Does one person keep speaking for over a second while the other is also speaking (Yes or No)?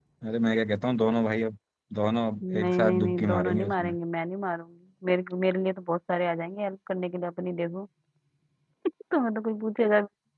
Yes